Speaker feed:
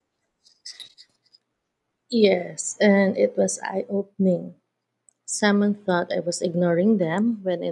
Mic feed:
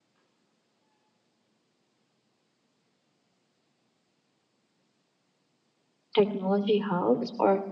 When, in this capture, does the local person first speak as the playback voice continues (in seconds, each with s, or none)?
6.1 s